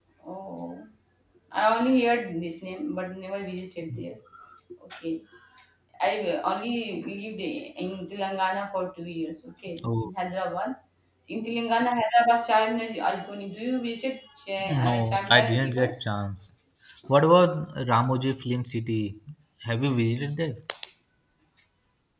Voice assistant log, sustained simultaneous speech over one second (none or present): present